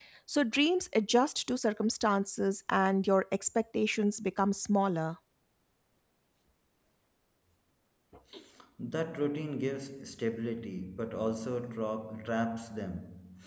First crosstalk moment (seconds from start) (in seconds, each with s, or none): none